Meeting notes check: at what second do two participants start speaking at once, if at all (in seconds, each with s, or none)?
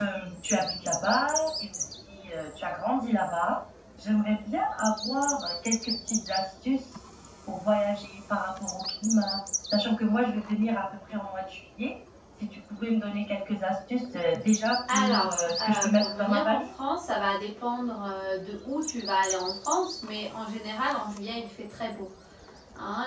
14.9 s